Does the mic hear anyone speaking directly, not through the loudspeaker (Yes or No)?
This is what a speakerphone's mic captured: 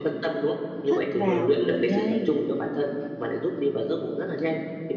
Yes